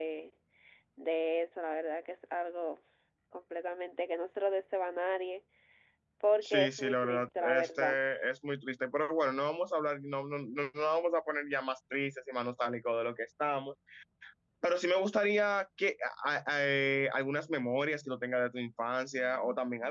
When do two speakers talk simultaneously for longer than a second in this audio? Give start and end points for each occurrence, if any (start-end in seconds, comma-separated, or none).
6.4-8.0